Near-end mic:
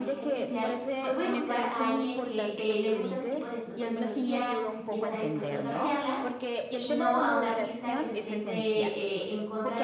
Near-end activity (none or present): present